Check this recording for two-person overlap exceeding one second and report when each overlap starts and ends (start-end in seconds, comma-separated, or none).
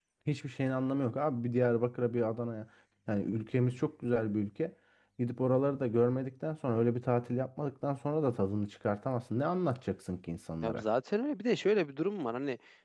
none